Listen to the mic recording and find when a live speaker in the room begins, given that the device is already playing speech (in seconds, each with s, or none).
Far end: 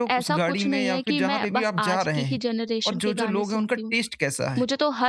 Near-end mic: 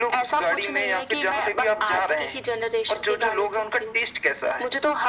none